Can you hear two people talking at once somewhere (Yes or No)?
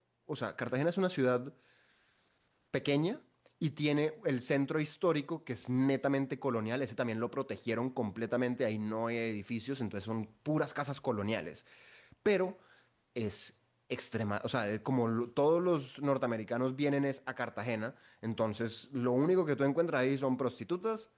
No